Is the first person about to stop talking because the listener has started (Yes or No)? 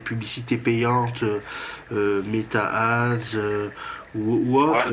Yes